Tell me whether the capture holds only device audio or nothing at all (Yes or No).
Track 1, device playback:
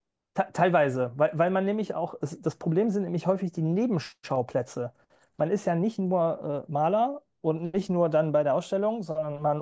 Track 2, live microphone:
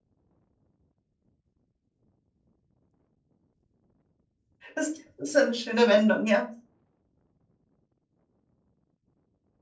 No